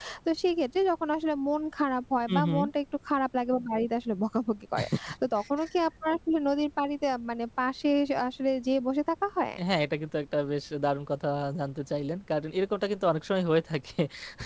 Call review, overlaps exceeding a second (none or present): none